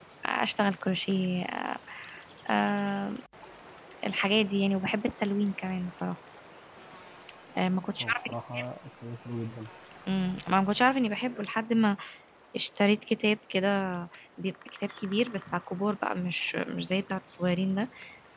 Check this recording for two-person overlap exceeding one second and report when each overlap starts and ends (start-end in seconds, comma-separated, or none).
none